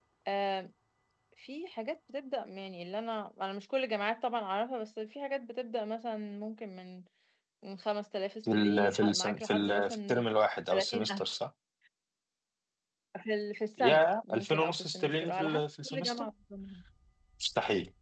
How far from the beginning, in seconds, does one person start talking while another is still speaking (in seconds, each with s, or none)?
8.5 s